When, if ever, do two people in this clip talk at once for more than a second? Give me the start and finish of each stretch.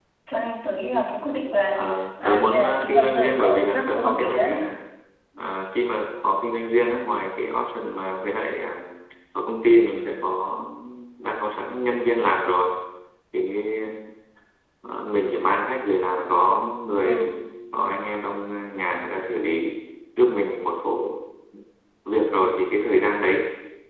2.2-4.5

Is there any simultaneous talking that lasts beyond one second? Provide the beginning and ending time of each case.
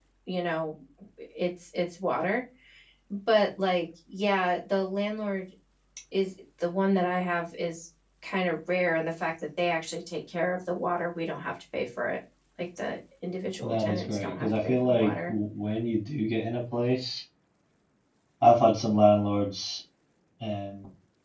13.6-15.3

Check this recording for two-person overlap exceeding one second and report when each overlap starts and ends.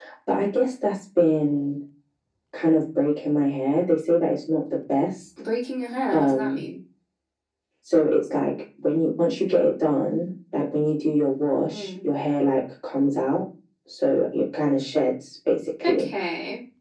none

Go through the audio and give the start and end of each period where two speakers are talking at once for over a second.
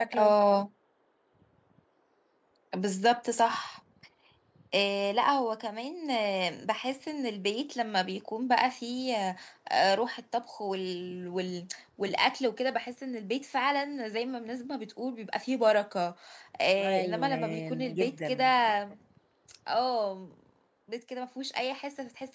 16.8-18.4

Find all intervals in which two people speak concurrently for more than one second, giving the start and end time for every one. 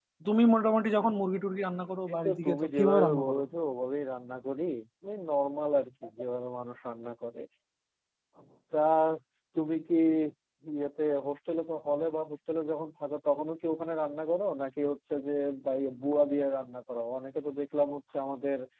2.1-3.4

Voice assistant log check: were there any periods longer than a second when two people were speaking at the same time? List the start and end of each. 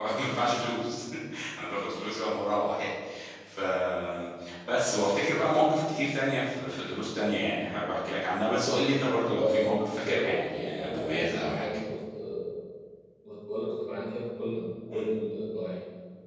9.3-11.6

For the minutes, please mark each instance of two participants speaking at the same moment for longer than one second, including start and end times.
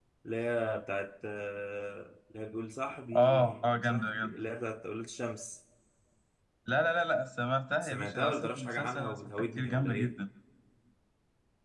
3.2-4.4, 7.8-10.1

